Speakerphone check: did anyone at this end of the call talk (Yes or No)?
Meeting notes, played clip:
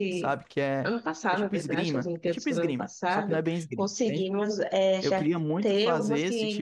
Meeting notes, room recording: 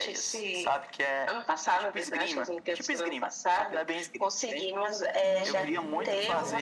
Yes